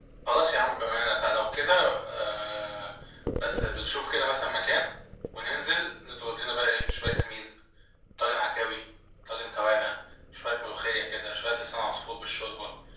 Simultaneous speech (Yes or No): No